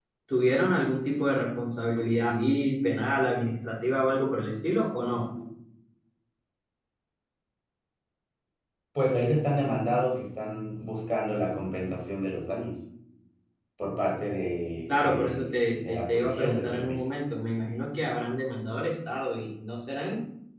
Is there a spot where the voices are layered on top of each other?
Yes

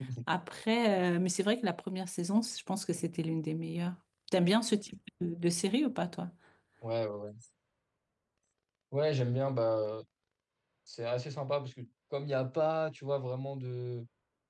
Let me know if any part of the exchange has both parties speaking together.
No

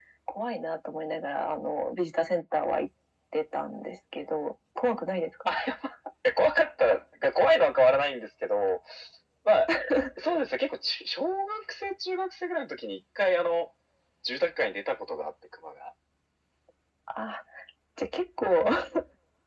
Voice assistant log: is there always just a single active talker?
Yes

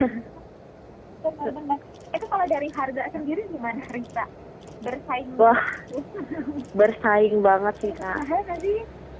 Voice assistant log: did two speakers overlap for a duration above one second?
No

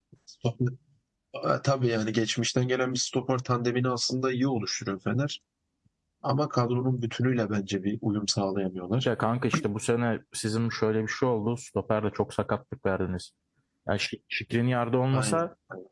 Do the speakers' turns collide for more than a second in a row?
No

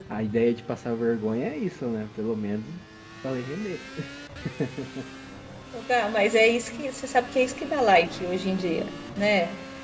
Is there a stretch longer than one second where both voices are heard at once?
No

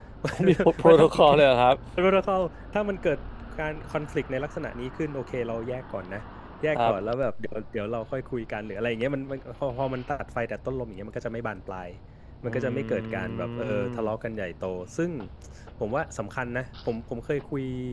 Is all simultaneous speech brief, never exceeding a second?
No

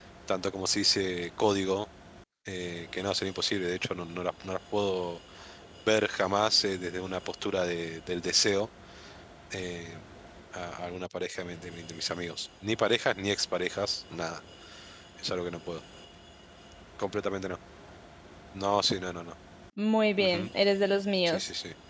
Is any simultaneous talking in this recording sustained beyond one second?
No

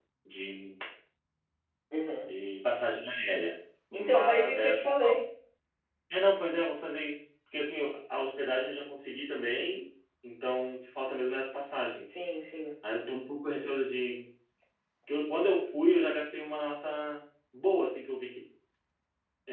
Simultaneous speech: Yes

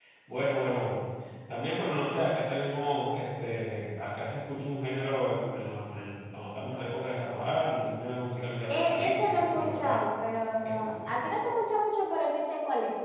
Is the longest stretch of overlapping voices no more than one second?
No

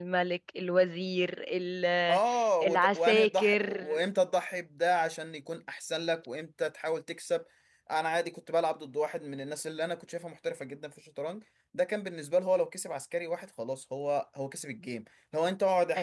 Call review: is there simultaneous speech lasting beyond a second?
Yes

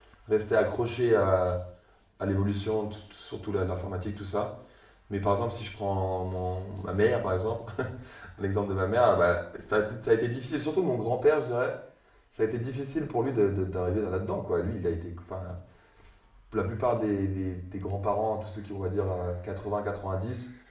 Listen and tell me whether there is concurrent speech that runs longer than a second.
No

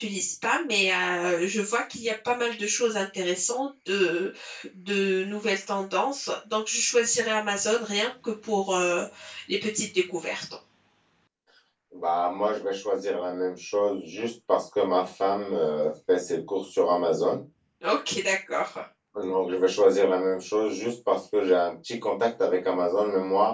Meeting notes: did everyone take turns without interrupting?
Yes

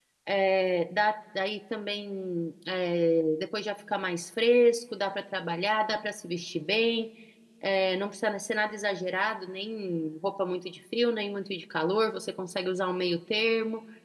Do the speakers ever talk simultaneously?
No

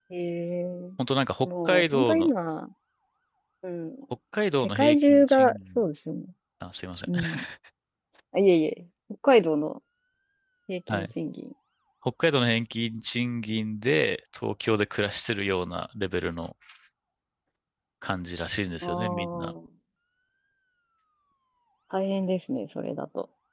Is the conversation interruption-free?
No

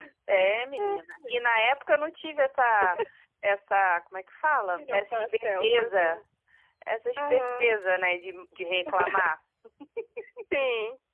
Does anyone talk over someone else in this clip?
Yes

